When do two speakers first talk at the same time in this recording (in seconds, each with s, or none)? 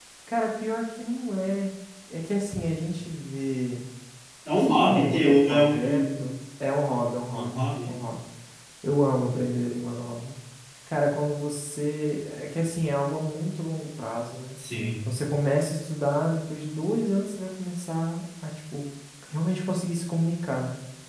4.6 s